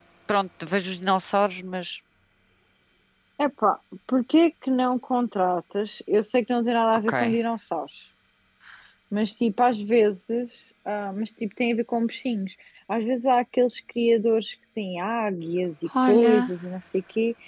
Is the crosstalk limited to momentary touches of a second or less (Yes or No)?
Yes